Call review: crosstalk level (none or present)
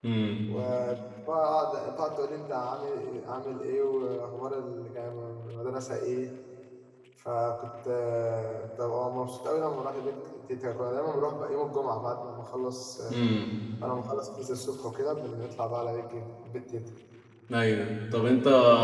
none